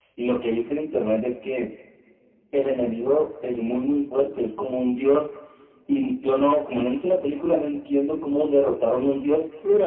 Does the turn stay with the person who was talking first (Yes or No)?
Yes